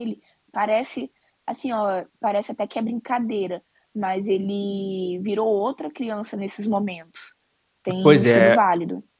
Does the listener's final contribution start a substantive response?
Yes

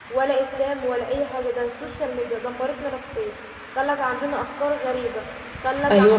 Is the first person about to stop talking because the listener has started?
No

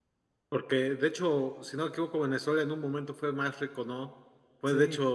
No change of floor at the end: Yes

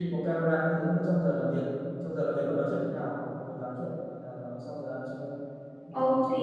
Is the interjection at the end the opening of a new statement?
Yes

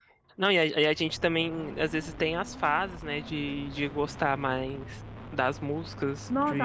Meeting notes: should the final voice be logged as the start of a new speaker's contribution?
Yes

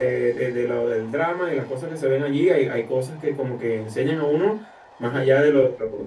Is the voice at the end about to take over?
No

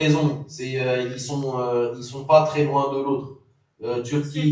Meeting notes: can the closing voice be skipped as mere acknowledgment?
Yes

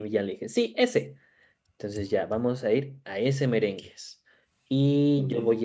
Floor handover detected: No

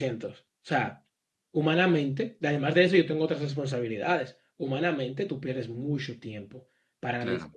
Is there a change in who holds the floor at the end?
No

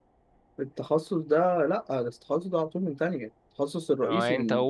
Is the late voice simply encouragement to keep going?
No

